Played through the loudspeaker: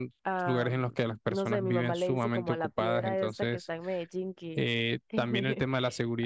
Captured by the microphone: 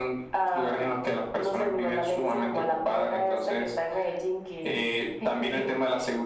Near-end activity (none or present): none